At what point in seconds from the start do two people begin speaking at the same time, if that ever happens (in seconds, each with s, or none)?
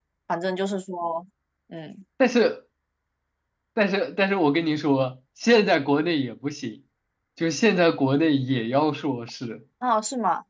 none